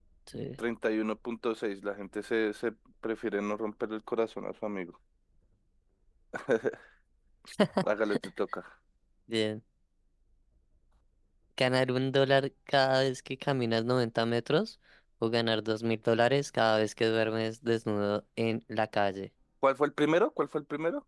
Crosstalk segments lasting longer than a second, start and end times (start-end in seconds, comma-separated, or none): none